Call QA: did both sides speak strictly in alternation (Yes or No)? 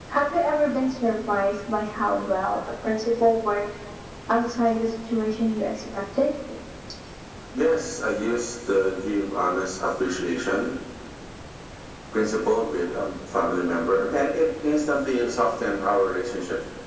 Yes